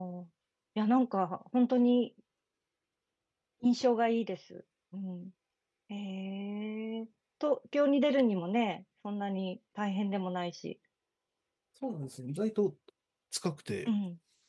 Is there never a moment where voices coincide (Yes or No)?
Yes